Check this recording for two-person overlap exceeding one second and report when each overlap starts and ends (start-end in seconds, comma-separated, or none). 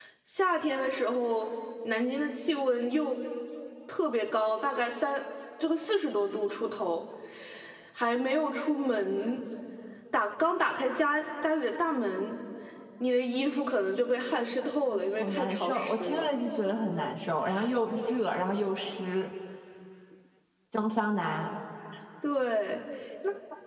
14.9-16.3